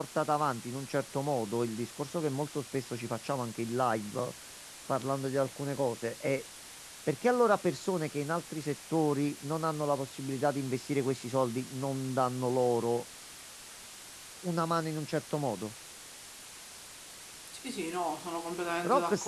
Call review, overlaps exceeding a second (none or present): none